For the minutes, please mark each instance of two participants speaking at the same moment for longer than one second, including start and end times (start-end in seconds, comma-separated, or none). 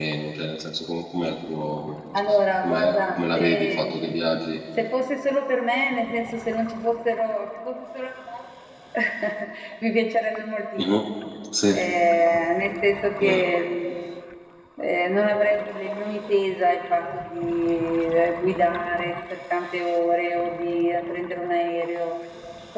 2.6-4.0